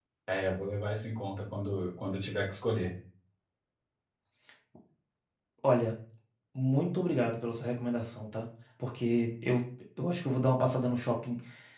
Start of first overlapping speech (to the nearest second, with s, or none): none